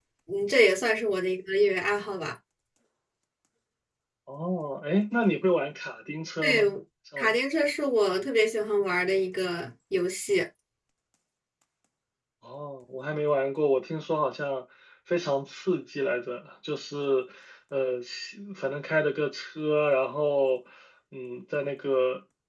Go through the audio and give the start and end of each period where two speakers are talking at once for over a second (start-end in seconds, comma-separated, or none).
none